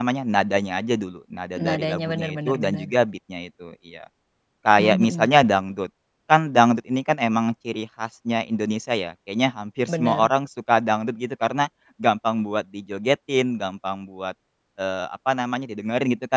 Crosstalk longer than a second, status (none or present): present